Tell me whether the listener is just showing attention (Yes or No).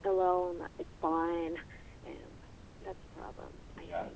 No